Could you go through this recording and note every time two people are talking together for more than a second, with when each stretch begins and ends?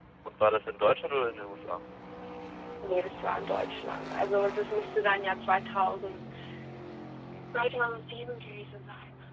none

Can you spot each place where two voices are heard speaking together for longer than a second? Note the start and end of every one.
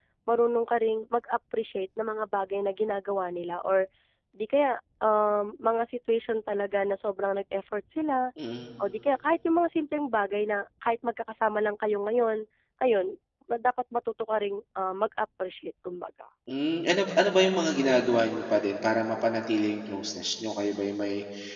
none

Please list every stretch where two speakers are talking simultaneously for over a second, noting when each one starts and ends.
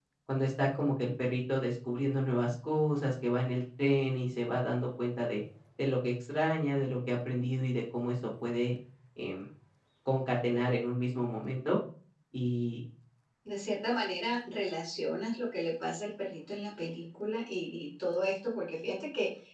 none

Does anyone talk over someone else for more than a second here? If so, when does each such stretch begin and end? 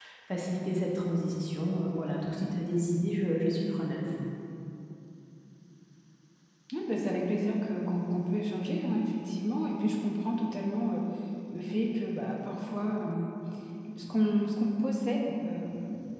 none

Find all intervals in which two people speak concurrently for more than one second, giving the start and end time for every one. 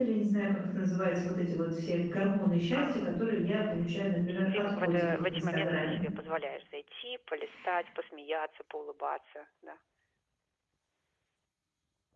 4.3-6.0

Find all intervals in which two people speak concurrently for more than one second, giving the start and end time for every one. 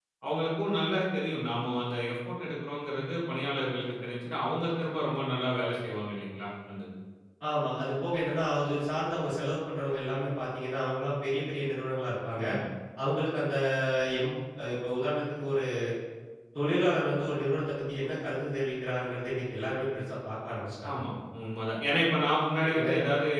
none

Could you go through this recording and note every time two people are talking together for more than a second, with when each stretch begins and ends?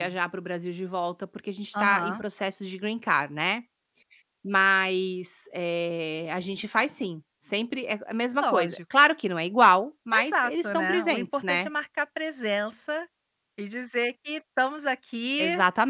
10.1-11.7

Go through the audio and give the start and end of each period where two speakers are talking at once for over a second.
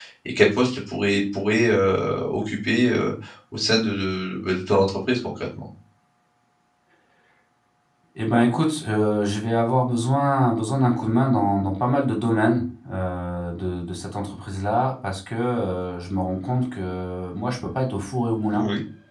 none

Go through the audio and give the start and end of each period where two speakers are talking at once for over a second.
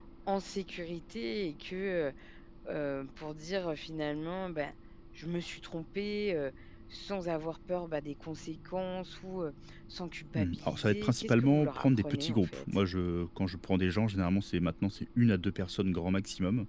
10.3-12.6

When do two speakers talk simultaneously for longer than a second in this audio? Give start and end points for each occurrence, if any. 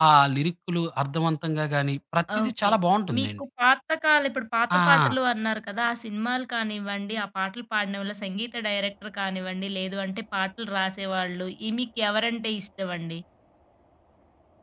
none

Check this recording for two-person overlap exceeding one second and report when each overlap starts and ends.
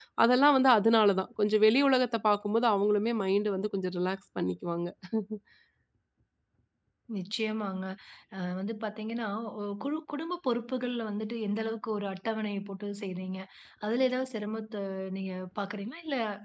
none

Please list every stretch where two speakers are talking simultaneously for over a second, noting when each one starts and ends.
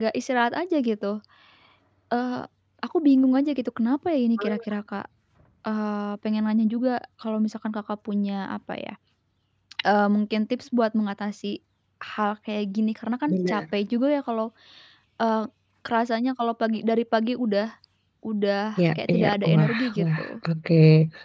18.9-20.4

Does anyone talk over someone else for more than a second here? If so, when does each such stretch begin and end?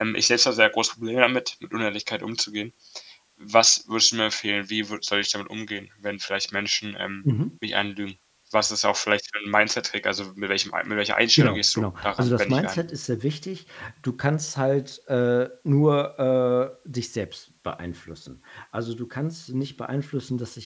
11.4-12.8

